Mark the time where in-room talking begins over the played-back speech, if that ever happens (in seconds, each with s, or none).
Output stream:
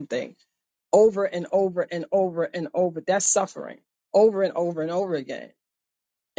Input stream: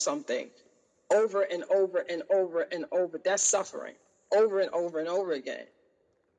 none